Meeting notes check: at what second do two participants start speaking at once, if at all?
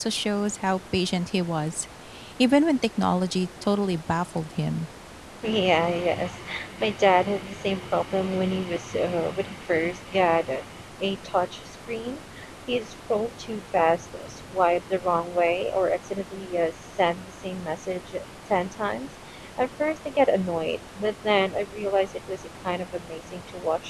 none

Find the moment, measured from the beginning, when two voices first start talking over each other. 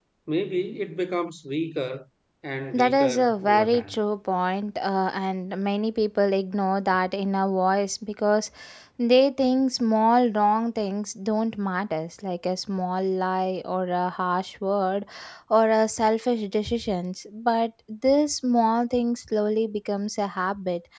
2.7 s

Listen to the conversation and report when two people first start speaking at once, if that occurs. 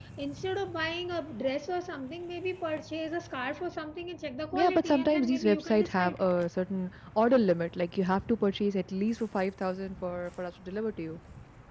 4.5 s

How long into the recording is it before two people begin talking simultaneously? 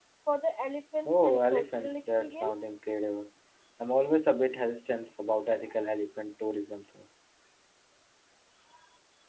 1.1 s

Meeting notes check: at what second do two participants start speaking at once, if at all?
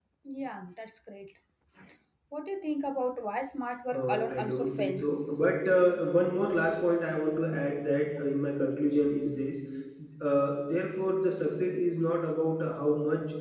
3.9 s

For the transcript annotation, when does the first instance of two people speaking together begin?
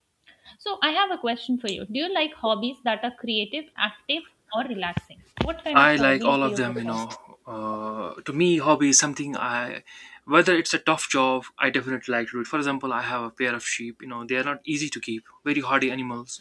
5.7 s

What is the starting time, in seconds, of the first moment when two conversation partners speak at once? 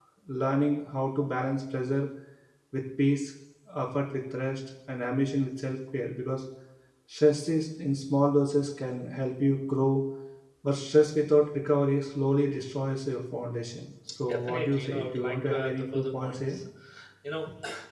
14.2 s

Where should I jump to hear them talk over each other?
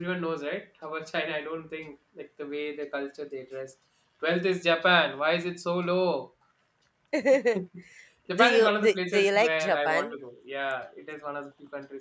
8.4 s

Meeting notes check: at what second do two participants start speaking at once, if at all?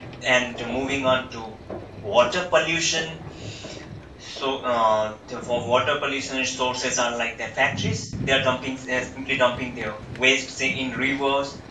none

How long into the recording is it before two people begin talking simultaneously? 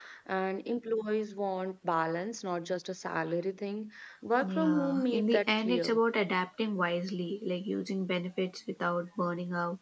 4.4 s

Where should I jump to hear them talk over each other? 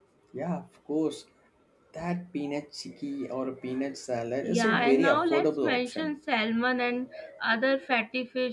4.4 s

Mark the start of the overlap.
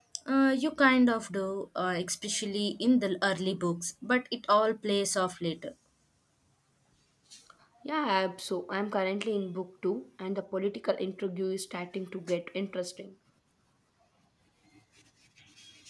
none

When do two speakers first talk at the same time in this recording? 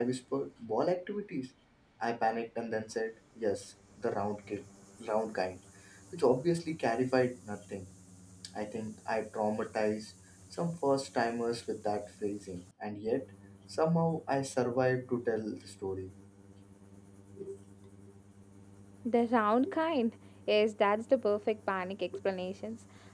none

